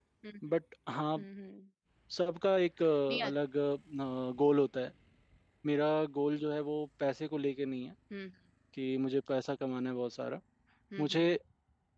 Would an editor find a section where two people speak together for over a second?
No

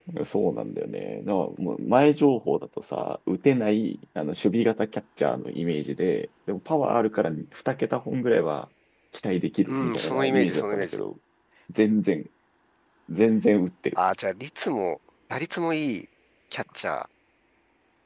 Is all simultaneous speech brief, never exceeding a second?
No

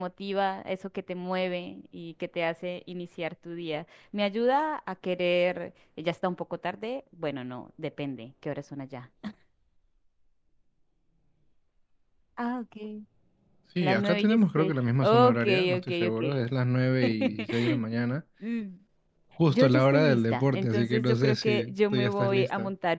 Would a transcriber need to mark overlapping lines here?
Yes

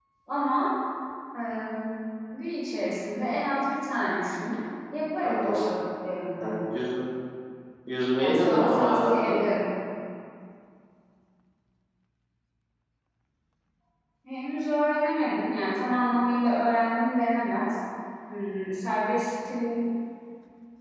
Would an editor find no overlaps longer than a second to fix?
No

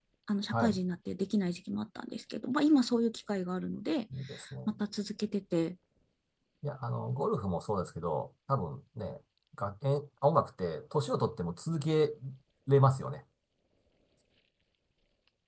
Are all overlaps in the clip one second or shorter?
Yes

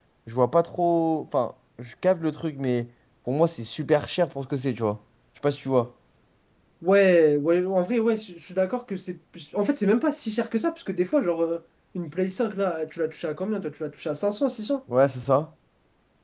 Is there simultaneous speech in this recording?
No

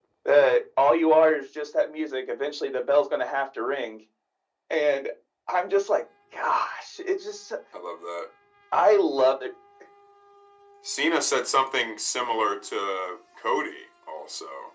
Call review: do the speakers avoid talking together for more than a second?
Yes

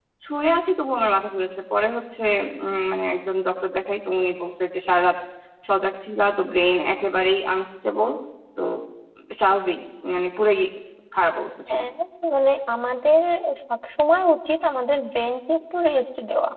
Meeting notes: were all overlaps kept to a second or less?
Yes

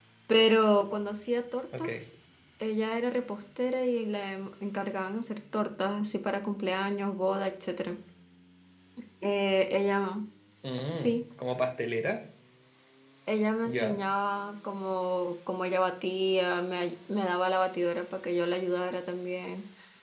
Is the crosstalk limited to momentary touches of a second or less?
Yes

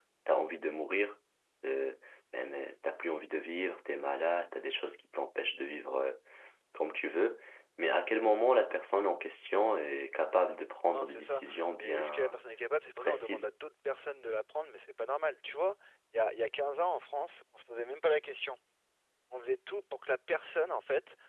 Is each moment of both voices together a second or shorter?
No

